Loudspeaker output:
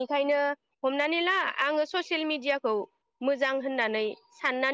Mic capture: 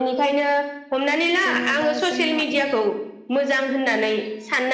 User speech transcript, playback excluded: जेनेबा जोंहा बे

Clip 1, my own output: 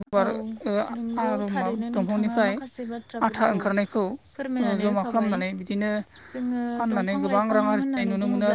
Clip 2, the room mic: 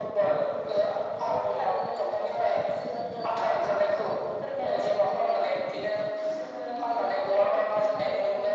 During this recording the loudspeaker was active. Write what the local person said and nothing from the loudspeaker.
none

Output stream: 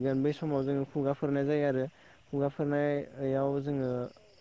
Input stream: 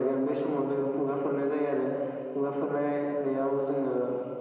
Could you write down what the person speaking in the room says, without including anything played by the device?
none

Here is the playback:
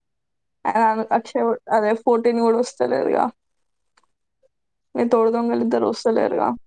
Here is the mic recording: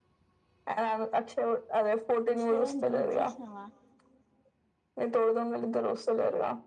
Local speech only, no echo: ఇన్స్టాగ్రామ్ డిలీట్ చేసినావా

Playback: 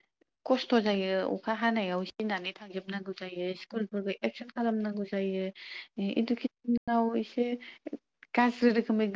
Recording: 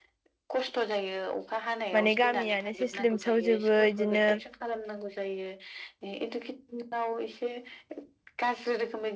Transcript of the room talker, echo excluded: माने गामियानो सेस लोमसावजोबो इदिनो

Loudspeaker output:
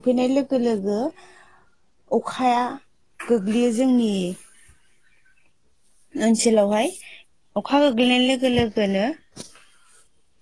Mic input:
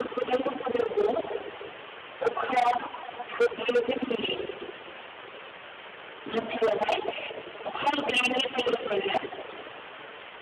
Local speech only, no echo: none

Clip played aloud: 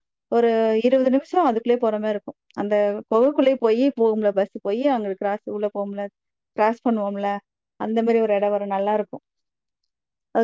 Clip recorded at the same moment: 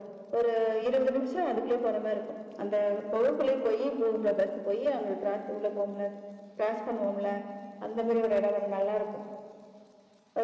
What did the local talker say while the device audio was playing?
none

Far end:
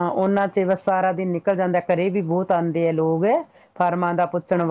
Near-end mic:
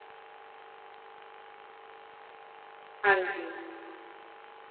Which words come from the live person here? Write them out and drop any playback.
ਹਾਂਜੀ

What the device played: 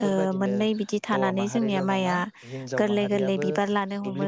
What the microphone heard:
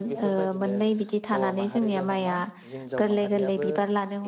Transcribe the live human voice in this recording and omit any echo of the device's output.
none

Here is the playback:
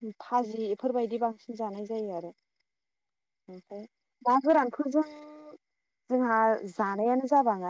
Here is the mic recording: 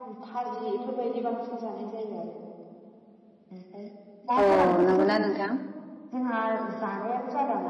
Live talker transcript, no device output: औ नंगौना नोंथां

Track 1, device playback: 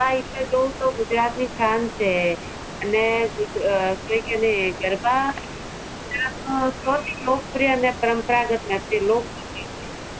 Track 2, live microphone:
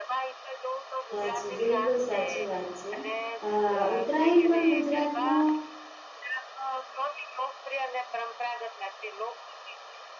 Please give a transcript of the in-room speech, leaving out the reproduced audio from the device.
સાચી બિલકુલ સાચી વાત છે અ ઉત્તરાયણ પણ ગુજરાતનો

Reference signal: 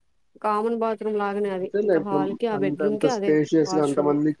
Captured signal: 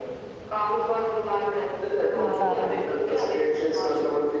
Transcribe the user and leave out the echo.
ఇంగ సారాల

